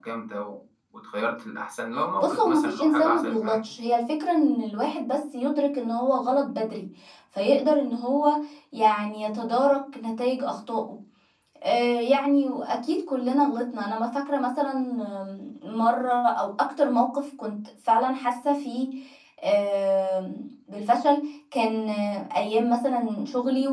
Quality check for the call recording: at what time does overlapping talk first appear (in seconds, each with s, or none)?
2.2 s